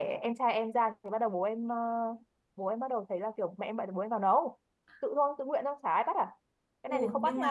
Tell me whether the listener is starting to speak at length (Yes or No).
Yes